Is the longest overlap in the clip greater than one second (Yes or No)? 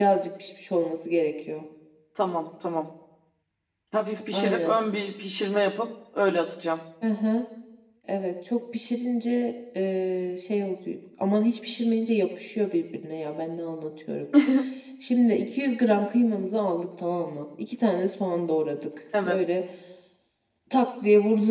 No